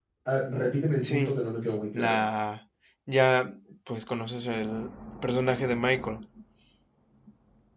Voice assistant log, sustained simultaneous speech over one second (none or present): none